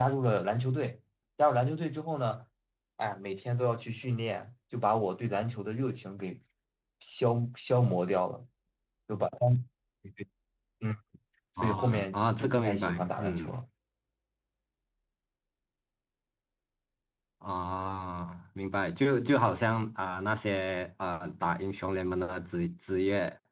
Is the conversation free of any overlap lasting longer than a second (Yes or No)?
No